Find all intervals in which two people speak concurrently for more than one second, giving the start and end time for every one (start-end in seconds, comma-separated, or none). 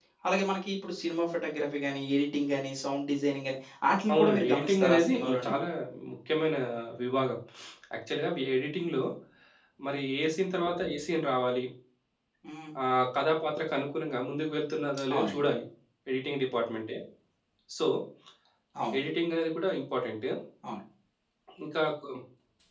4.1-5.5